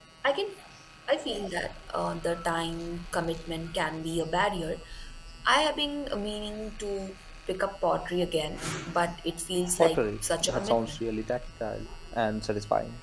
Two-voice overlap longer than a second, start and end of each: 9.8-11.0

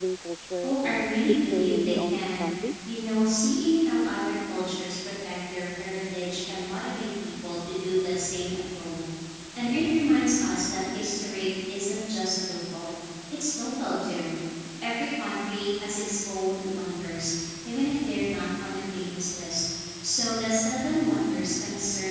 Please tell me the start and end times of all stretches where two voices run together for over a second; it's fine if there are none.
0.6-2.5

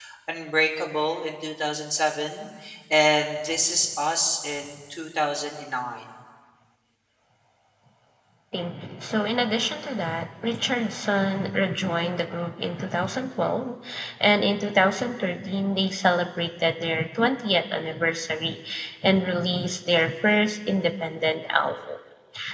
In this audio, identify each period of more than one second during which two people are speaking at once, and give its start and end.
none

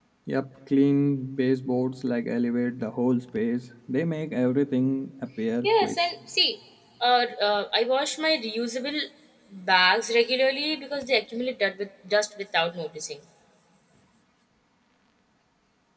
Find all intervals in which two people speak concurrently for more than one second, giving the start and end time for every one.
none

